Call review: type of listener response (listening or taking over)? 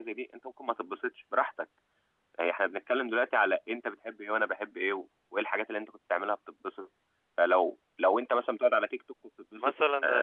taking over